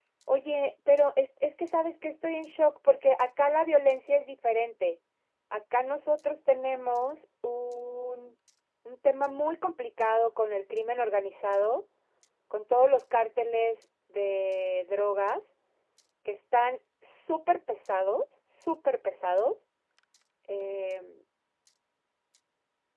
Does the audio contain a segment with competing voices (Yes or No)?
No